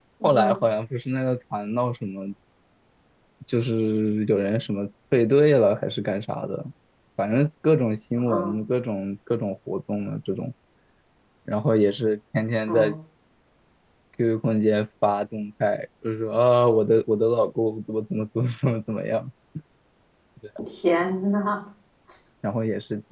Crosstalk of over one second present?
No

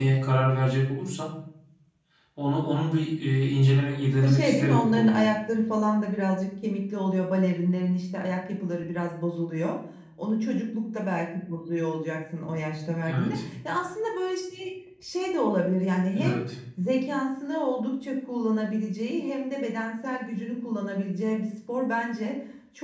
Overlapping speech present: Yes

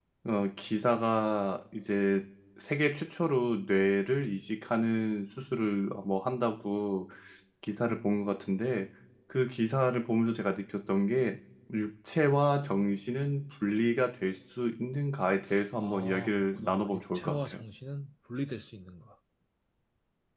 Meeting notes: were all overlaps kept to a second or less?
No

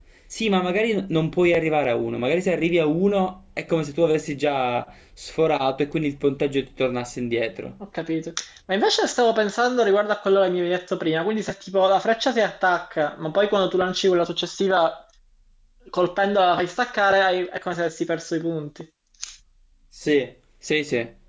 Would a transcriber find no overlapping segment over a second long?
Yes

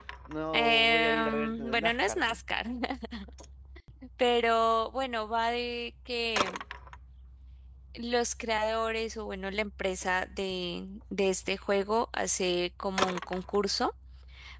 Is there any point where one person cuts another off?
Yes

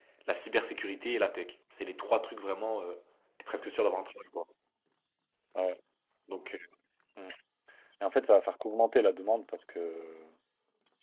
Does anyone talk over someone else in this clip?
No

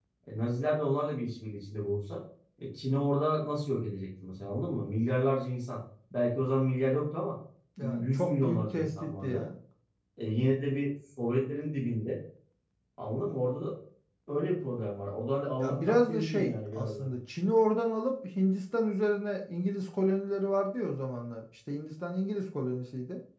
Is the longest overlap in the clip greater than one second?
Yes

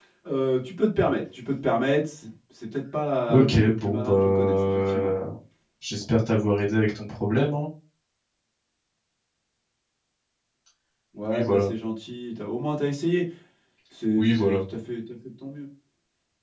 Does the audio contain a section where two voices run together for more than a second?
Yes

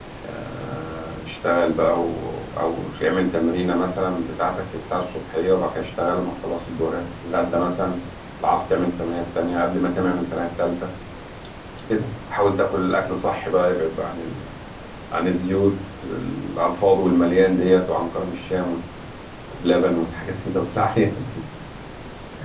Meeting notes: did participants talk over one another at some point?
No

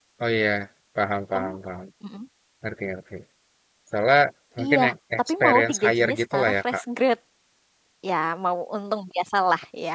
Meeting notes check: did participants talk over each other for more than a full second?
Yes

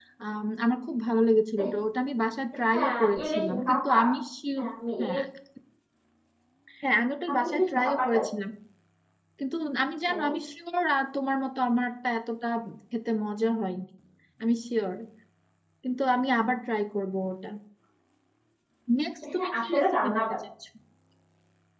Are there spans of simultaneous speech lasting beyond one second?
Yes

